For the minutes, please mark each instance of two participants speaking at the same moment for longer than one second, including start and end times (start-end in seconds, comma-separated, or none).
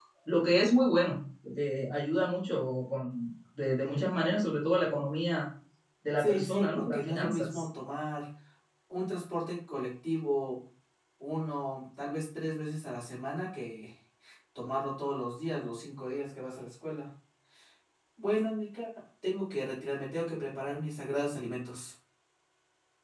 6.2-7.6